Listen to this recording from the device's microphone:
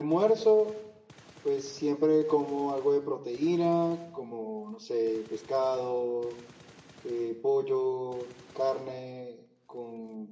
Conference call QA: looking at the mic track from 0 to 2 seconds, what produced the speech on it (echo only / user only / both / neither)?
user only